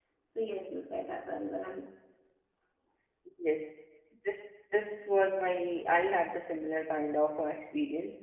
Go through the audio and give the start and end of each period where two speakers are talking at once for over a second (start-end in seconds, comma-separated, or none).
none